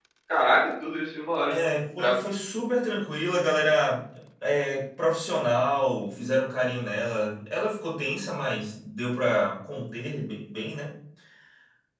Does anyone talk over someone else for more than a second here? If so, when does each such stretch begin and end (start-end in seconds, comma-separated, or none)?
none